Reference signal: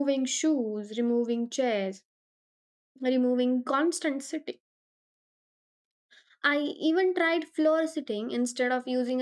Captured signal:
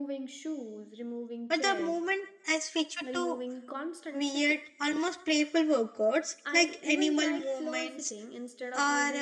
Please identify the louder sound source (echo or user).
user